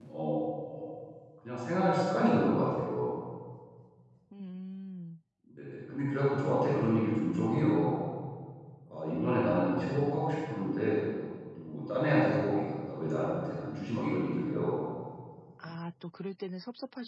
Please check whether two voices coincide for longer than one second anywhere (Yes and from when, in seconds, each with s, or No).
No